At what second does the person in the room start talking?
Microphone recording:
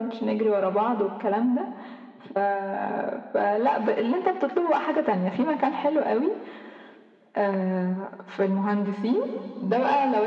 none

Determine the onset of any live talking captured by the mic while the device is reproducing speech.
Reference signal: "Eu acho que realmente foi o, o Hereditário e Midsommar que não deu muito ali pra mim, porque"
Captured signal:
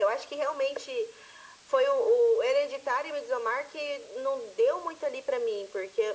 none

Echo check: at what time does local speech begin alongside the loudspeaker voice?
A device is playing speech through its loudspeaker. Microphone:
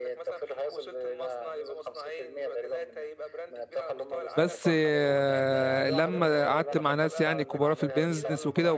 4 s

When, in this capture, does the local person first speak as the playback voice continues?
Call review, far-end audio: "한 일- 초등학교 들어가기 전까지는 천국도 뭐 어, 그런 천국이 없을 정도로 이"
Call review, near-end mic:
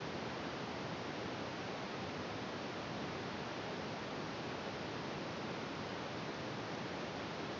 none

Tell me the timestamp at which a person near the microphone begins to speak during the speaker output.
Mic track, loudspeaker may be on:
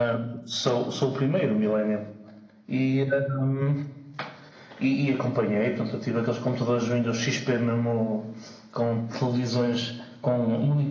none

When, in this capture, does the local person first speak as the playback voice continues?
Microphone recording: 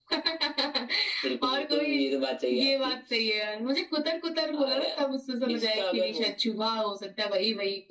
none

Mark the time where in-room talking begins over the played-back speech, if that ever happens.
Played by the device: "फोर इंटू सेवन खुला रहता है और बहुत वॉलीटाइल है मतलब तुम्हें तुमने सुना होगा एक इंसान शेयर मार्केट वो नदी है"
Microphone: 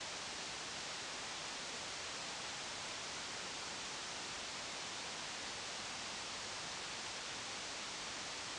none

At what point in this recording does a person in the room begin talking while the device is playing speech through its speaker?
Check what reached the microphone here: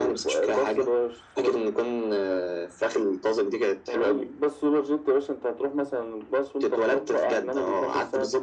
none

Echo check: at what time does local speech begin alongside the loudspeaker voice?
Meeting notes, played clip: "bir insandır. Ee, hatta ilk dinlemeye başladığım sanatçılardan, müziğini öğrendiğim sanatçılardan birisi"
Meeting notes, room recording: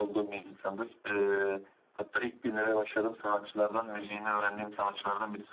none

